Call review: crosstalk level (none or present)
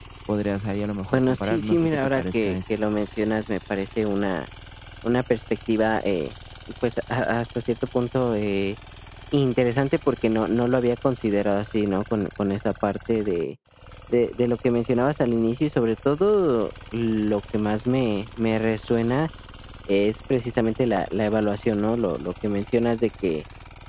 present